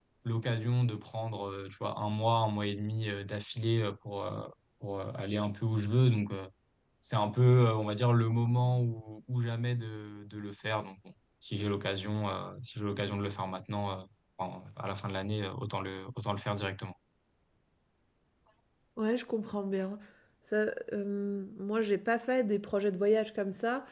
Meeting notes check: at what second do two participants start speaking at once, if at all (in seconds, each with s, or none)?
none